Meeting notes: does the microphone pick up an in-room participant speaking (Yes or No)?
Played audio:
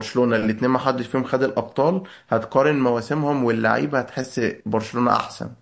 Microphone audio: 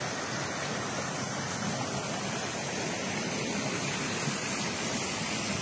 No